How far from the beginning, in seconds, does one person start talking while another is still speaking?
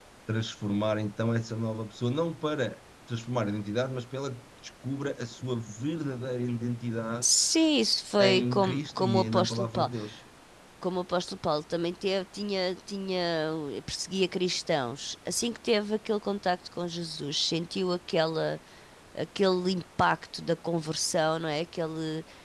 8.2 s

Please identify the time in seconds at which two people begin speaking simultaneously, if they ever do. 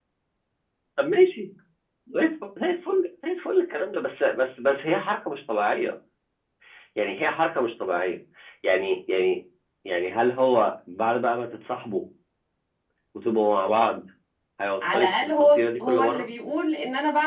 14.9 s

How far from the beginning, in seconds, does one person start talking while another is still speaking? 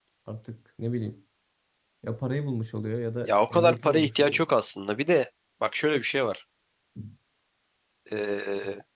3.2 s

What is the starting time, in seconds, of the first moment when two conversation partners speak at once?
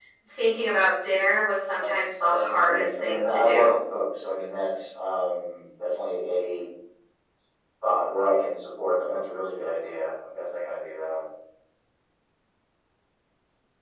2.0 s

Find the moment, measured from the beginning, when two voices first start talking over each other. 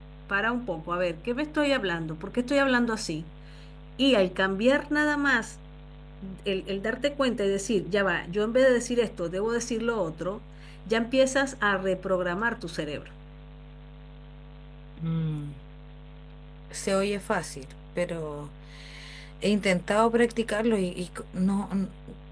none

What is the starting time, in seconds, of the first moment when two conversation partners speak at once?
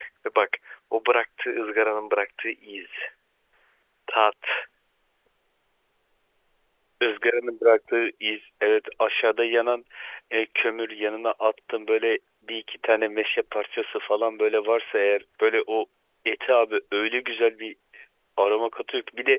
none

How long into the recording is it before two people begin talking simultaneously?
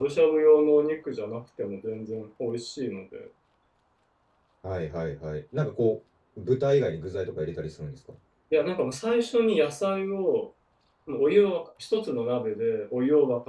none

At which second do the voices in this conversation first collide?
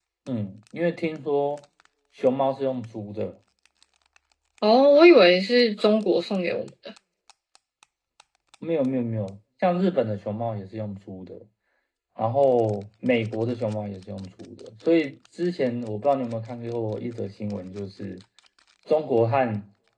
none

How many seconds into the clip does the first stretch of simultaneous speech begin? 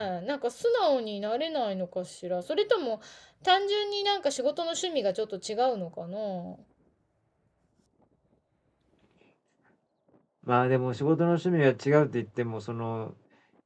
none

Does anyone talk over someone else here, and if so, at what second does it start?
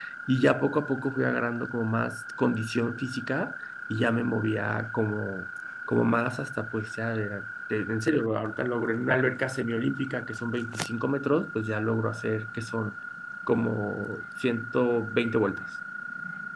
none

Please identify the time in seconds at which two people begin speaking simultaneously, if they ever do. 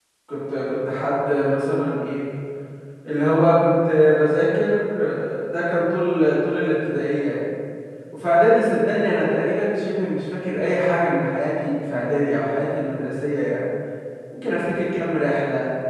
none

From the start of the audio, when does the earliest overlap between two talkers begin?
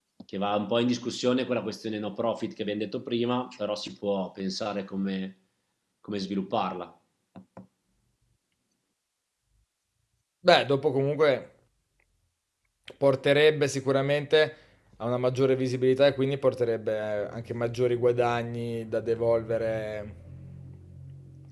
none

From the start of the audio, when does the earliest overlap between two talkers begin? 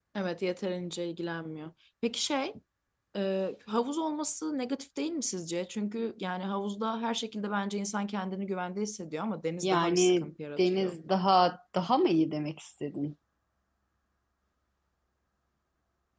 9.6 s

